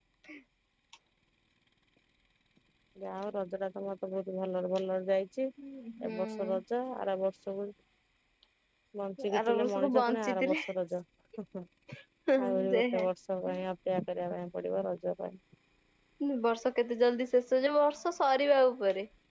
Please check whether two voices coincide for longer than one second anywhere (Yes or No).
Yes